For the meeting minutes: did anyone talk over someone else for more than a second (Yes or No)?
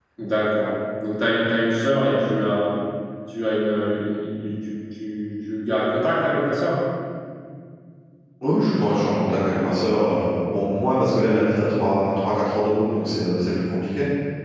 No